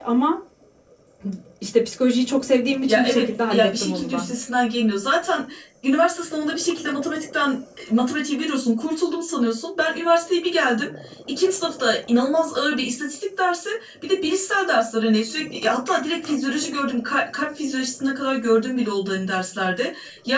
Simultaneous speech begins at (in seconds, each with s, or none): 2.9 s